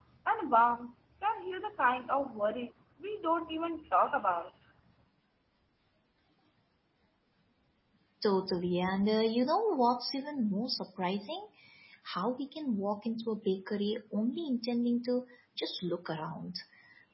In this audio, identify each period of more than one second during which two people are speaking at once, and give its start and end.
none

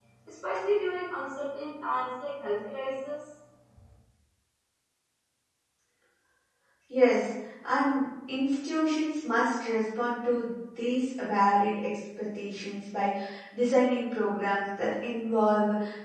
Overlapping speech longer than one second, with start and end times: none

